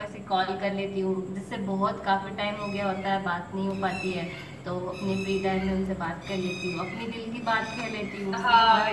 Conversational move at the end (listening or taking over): taking over